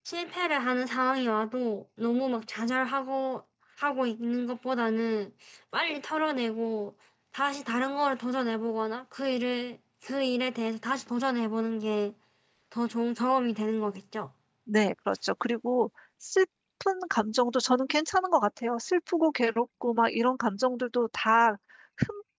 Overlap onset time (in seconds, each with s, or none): none